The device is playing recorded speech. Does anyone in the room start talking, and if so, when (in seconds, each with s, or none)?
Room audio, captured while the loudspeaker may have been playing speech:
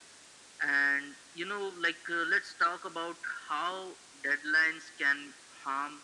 none